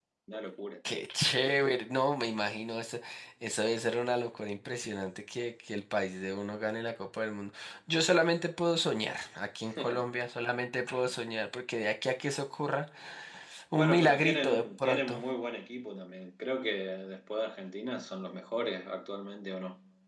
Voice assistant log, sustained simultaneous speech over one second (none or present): present